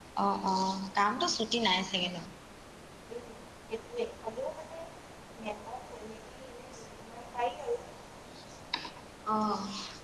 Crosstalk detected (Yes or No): No